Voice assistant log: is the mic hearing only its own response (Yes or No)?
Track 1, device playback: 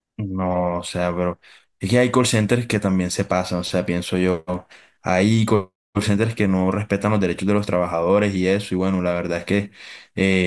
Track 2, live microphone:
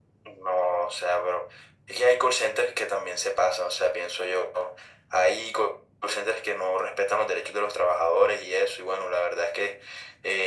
Yes